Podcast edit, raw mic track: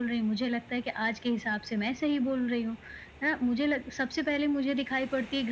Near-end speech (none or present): none